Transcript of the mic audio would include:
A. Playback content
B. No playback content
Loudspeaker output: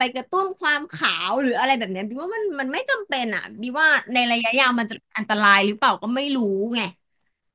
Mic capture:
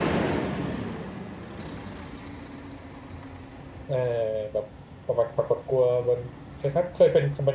B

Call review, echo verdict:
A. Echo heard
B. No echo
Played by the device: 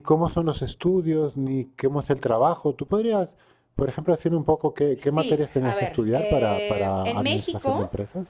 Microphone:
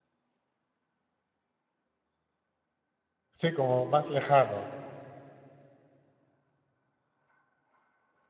B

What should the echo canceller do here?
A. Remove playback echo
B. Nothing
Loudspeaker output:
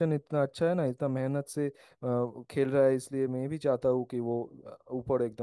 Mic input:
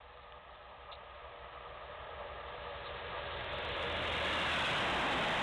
B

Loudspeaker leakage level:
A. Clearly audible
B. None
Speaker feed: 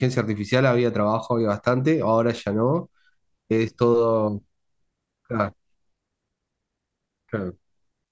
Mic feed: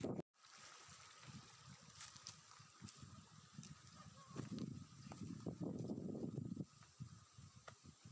B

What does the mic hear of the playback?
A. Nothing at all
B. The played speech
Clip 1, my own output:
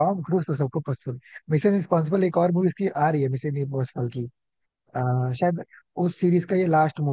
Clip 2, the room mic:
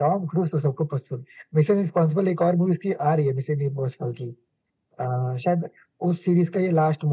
B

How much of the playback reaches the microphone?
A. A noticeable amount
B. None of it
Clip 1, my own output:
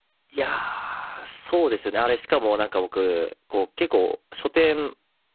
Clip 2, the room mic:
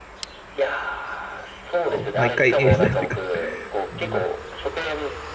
A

